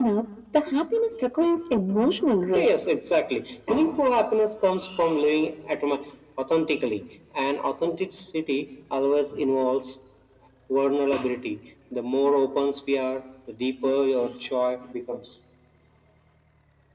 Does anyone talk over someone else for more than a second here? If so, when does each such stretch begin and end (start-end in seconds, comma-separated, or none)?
none